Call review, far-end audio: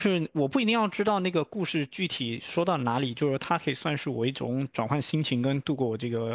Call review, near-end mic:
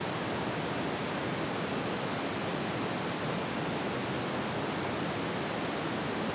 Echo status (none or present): none